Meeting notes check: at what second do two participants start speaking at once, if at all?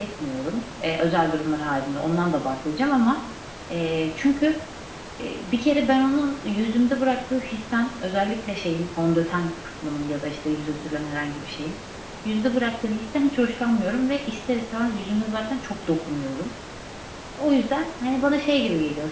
none

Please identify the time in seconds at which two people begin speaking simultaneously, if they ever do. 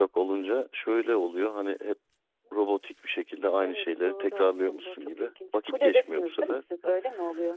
3.6 s

